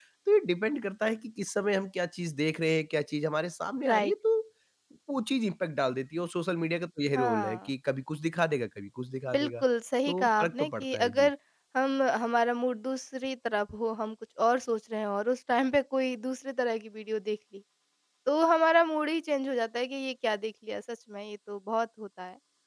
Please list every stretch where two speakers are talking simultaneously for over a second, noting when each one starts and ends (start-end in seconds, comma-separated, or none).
10.1-11.3